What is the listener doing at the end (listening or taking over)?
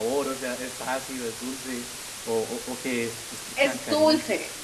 taking over